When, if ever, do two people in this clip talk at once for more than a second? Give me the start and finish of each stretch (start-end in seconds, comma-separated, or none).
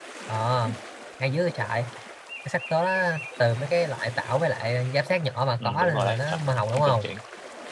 5.6-7.1